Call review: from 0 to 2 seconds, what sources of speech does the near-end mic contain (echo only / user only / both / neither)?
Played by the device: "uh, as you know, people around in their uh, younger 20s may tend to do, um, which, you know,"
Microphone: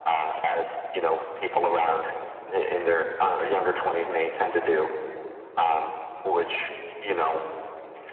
echo only